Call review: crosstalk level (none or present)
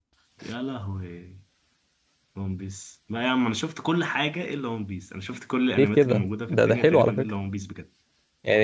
present